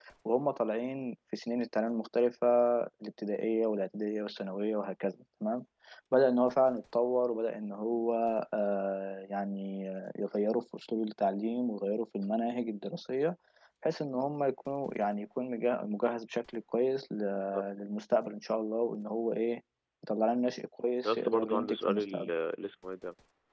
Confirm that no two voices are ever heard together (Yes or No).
No